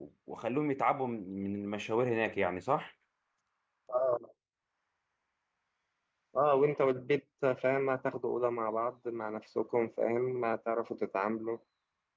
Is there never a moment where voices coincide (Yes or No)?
Yes